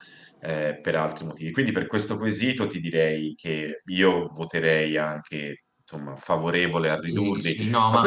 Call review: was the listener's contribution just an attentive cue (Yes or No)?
No